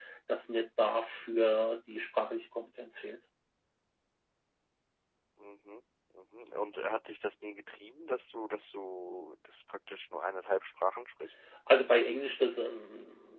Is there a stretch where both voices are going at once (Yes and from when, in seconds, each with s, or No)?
No